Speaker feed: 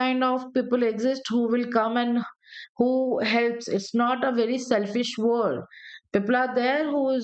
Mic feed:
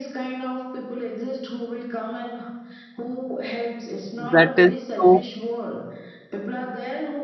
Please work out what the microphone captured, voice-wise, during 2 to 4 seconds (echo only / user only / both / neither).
echo only